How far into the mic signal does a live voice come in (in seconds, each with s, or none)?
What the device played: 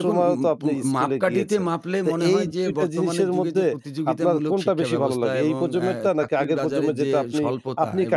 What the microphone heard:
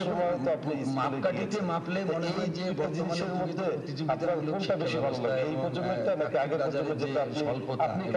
none